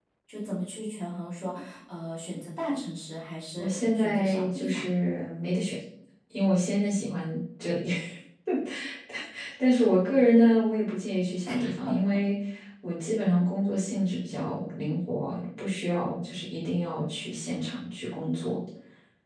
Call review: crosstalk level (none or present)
present